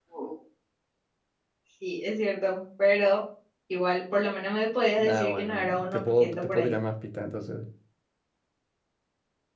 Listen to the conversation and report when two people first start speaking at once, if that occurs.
5 s

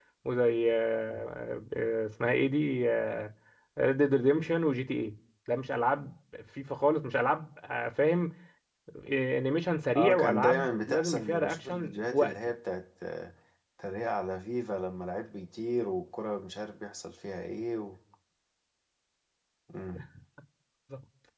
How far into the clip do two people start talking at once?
10 s

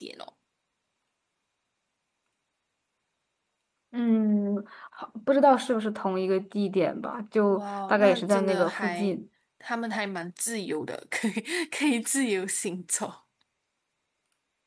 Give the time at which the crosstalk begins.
7 s

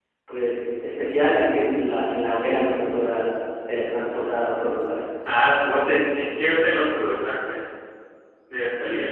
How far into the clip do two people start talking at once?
none

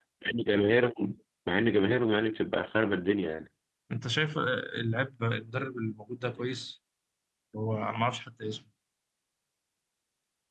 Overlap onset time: none

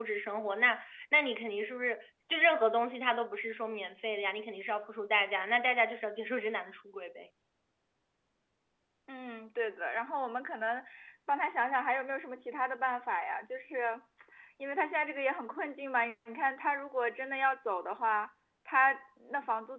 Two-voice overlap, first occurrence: none

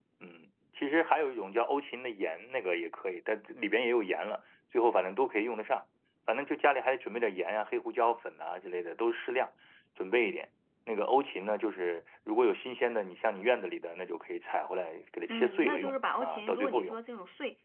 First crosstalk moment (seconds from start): 15 s

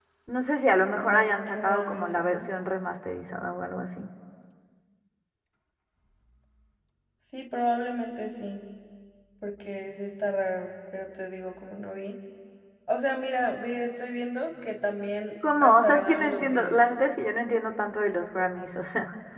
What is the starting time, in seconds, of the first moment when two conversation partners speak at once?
1 s

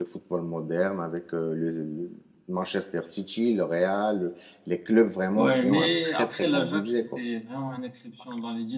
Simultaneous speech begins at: 5 s

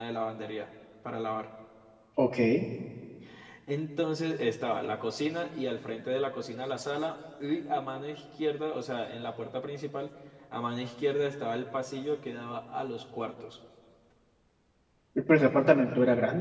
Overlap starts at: none

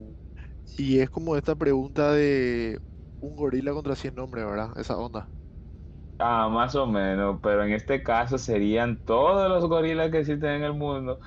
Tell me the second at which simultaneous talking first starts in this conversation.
none

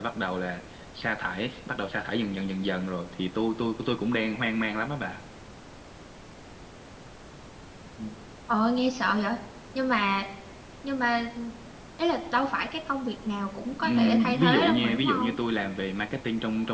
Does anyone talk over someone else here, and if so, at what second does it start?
14 s

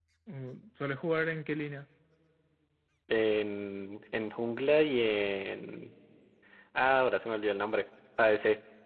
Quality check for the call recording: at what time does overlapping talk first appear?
none

